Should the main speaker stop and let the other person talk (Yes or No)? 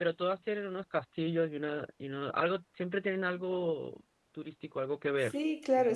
Yes